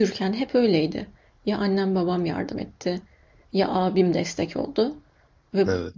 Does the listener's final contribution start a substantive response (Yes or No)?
No